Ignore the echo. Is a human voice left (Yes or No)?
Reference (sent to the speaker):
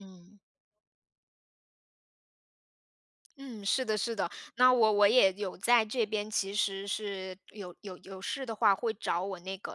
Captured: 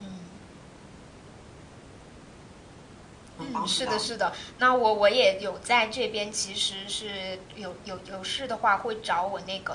Yes